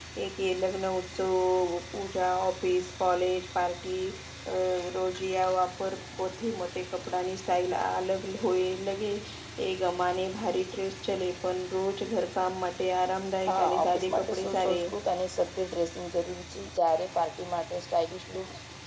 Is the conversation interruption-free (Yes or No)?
No